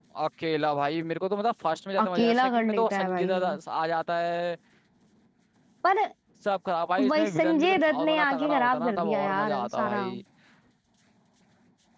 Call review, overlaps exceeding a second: present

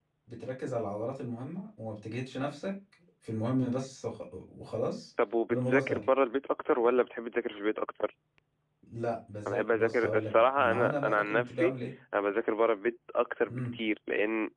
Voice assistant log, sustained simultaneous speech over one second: present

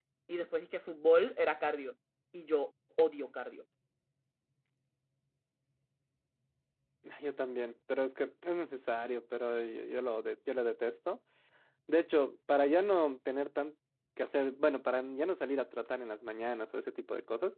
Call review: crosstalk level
none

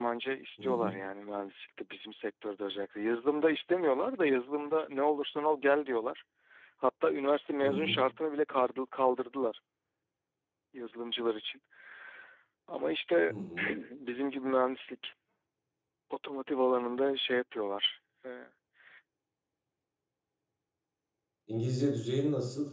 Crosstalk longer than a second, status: none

